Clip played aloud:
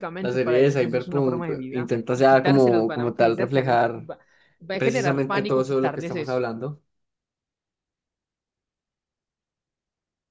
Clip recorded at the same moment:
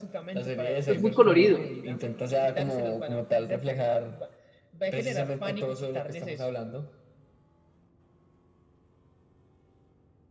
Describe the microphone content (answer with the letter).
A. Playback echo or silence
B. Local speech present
B